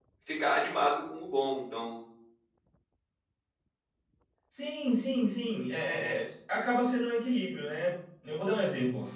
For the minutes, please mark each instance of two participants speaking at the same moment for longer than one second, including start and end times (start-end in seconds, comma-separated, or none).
none